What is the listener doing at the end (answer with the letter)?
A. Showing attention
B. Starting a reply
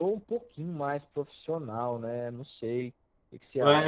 B